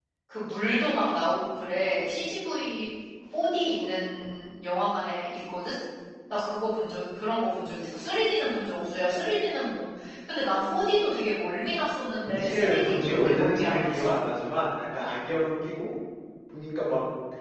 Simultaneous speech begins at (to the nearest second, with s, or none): 12 s